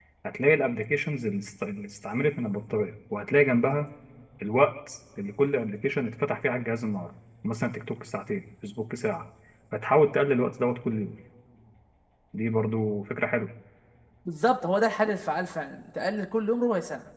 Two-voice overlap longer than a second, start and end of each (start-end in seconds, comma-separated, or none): none